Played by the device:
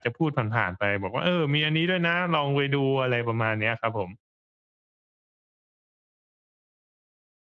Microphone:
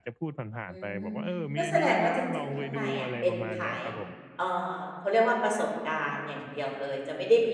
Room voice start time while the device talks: 0.7 s

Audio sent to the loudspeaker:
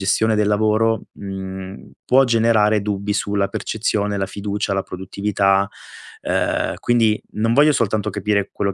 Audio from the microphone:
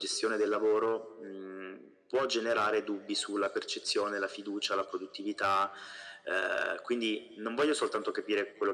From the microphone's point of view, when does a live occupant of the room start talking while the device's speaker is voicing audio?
none

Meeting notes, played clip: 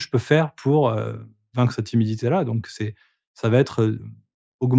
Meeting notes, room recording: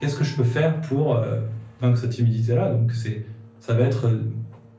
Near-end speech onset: none

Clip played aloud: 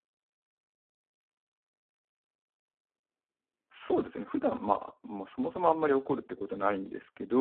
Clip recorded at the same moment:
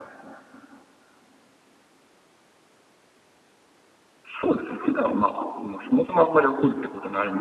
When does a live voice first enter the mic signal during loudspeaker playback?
none

